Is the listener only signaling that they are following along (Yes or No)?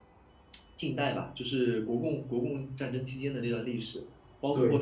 Yes